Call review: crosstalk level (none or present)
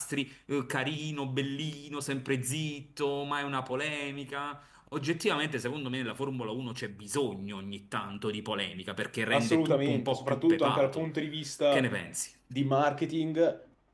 present